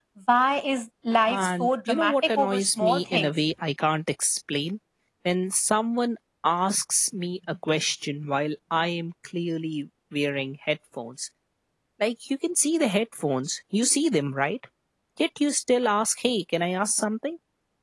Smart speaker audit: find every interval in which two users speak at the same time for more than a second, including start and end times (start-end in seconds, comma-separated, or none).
1.3-3.3